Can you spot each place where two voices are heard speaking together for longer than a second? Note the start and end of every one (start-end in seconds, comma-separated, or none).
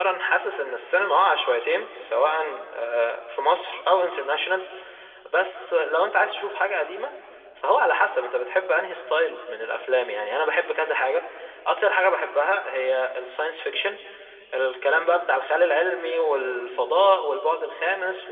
none